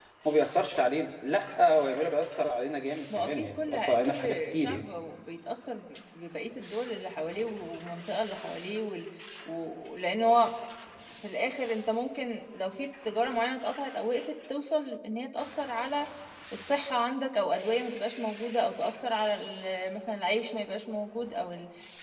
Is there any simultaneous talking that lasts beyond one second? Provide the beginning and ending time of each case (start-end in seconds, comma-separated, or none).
3.2-4.8